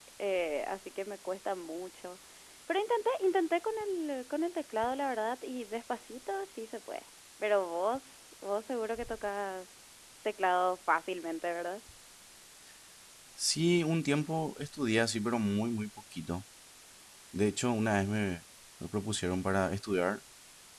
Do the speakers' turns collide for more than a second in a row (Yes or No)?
No